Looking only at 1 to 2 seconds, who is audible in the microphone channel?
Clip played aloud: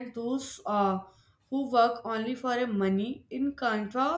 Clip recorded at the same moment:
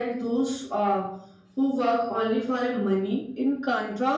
echo only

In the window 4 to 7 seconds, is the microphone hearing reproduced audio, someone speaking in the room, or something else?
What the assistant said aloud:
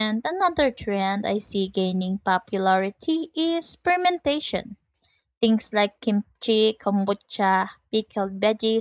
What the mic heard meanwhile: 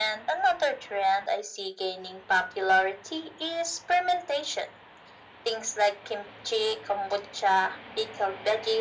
echo only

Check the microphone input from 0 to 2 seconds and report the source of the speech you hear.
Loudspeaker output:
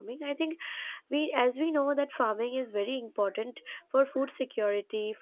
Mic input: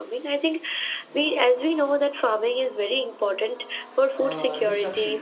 echo only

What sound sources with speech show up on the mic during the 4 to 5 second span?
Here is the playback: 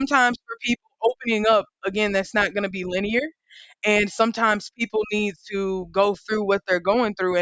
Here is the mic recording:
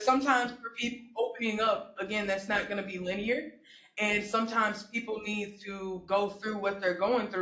echo only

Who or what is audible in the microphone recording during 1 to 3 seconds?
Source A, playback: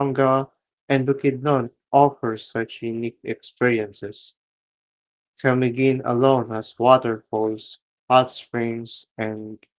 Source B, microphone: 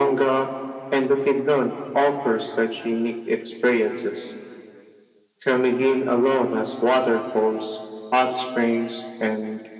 echo only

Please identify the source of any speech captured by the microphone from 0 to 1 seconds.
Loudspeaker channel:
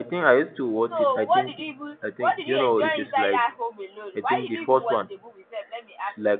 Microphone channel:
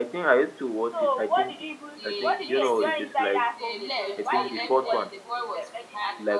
echo only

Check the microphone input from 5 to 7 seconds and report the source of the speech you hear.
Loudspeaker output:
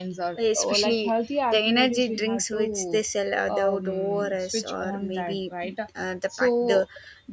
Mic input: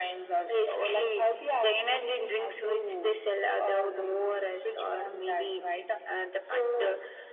echo only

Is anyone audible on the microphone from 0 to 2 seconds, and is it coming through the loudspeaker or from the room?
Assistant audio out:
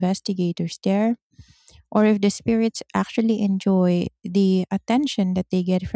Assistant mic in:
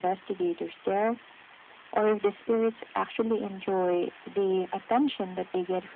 echo only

